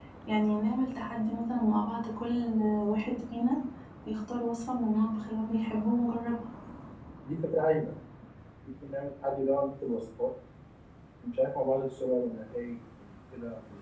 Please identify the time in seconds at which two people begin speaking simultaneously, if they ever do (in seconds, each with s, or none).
none